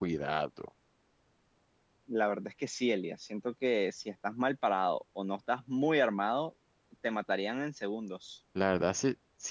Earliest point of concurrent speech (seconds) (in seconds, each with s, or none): none